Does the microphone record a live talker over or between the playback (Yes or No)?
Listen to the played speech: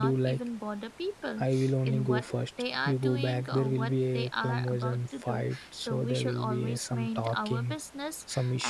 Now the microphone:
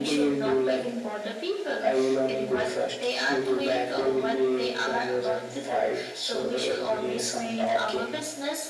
No